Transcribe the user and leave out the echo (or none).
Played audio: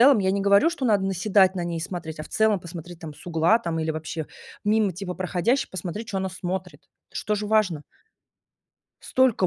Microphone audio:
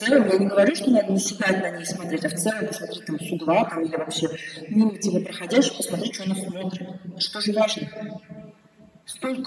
none